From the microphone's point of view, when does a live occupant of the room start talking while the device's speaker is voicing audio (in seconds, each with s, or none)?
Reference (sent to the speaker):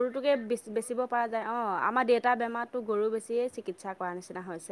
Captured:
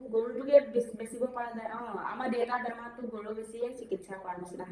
none